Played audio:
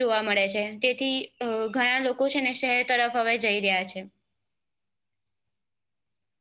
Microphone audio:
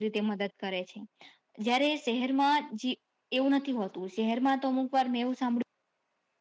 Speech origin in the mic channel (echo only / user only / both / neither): user only